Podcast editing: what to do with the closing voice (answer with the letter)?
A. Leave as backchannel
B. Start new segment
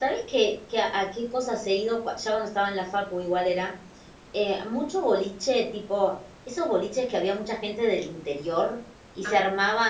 A